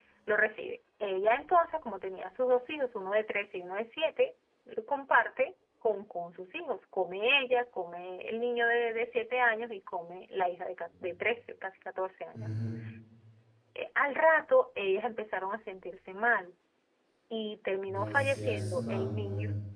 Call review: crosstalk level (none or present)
present